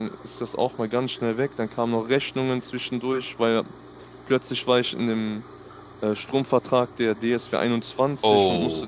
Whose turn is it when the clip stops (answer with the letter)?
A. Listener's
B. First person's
B